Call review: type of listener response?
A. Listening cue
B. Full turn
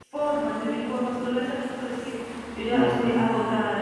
A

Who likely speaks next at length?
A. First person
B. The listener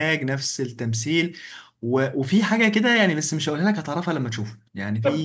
A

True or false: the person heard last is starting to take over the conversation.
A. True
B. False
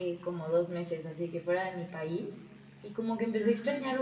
B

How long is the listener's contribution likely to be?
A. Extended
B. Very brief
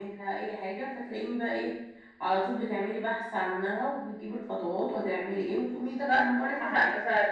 A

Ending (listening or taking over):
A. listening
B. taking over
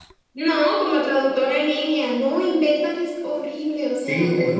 B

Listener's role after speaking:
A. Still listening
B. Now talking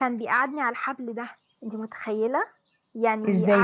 A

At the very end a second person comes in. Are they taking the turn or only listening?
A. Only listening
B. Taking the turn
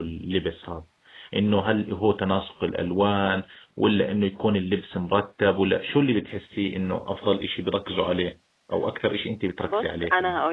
B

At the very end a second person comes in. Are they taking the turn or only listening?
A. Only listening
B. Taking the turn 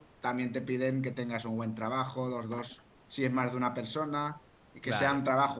A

